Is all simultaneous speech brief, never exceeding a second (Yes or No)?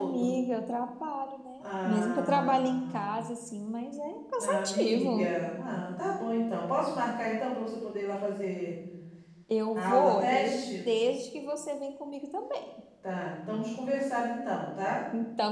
No